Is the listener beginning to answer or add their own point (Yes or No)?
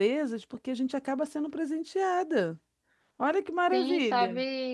Yes